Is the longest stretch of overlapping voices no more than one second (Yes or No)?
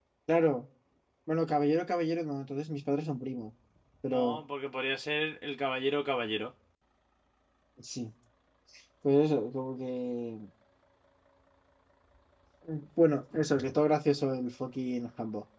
Yes